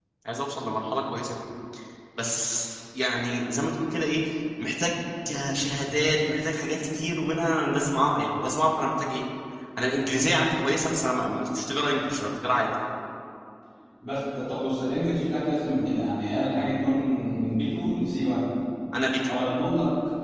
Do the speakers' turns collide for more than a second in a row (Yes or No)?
No